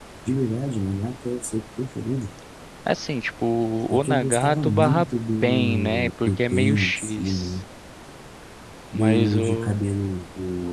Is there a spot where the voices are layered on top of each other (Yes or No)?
Yes